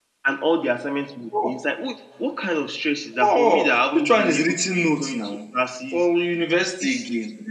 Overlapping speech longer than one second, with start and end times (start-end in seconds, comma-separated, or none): 3.2-5.4